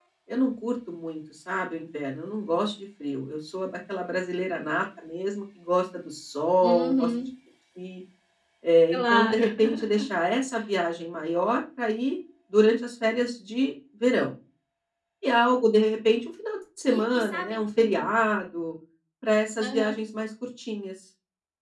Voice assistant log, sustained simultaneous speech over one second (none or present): present